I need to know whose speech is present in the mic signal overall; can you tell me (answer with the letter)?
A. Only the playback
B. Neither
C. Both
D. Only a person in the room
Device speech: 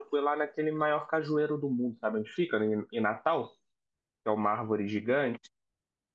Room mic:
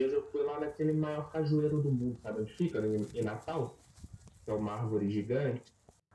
A